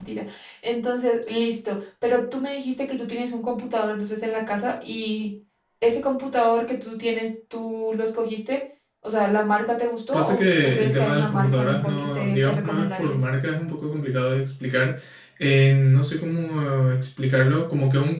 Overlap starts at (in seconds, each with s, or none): 10.1 s